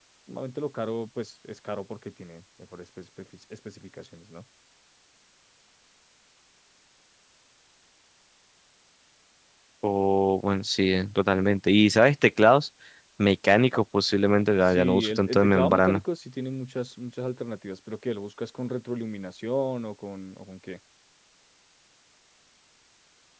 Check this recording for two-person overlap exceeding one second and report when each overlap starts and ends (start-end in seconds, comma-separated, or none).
14.7-16.0